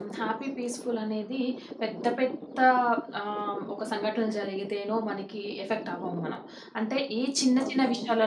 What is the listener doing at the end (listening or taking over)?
listening